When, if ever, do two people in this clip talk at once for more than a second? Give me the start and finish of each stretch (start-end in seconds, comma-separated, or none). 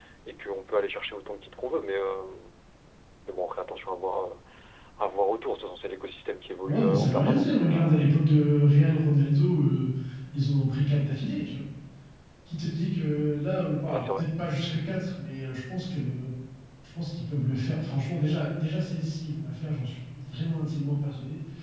6.6-7.9